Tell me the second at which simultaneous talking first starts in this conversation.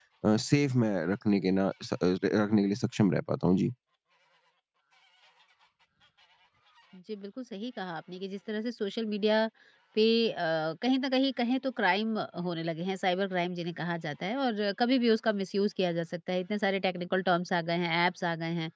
none

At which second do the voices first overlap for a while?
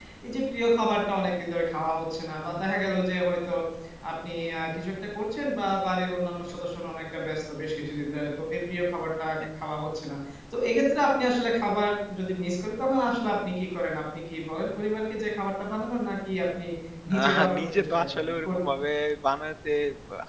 17 s

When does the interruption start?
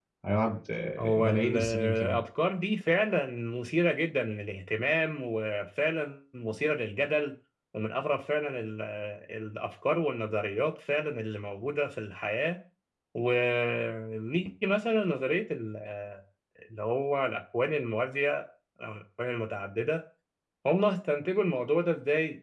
1 s

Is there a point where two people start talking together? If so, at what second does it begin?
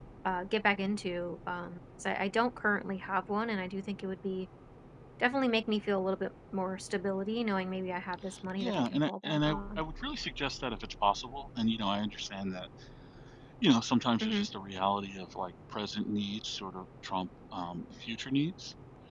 9 s

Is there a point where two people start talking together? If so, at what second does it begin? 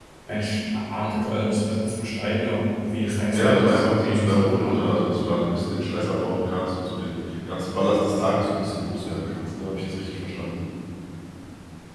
3 s

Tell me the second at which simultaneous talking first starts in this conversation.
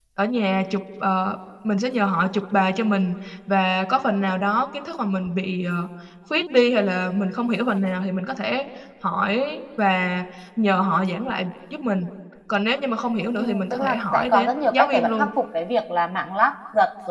13 s

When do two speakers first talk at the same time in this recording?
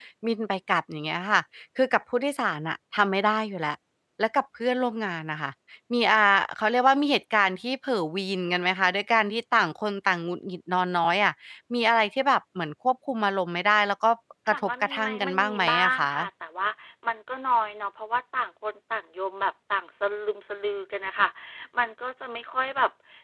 14 s

